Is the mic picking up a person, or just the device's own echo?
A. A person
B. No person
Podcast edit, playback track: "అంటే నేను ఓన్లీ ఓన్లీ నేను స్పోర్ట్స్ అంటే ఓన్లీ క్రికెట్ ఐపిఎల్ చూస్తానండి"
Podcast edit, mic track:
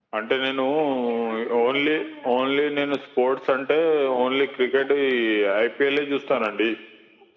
B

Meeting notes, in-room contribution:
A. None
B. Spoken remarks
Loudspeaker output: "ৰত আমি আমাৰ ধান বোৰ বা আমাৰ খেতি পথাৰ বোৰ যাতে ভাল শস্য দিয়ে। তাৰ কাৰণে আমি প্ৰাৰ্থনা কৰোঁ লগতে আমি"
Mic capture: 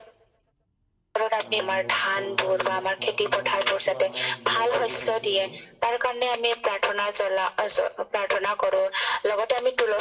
B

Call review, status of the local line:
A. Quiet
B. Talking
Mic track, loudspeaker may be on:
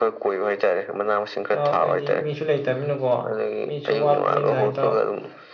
B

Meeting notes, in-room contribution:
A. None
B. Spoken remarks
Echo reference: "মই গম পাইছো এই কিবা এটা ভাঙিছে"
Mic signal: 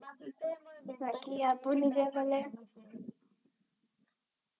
B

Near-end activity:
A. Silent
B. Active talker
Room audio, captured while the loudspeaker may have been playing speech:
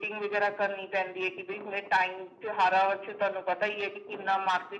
A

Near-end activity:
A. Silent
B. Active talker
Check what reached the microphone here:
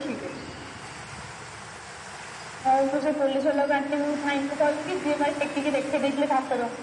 A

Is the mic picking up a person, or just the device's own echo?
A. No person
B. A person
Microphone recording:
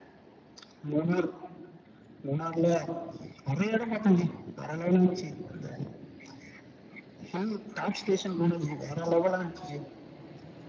A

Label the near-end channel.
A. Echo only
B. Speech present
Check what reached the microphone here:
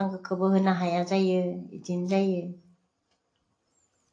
B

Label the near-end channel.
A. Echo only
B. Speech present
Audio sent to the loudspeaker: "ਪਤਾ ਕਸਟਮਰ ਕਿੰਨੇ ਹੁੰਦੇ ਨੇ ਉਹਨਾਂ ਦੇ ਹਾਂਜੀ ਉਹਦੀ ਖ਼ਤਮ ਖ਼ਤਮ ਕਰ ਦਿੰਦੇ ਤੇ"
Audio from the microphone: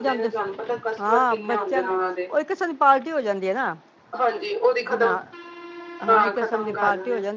B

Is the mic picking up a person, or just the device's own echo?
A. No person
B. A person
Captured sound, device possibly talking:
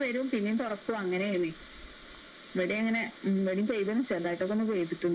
A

